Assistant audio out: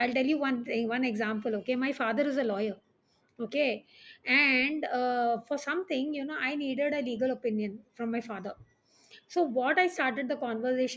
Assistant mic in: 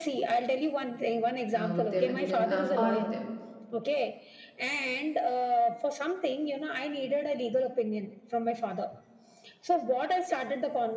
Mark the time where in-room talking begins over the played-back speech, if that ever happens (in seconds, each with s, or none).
1.5 s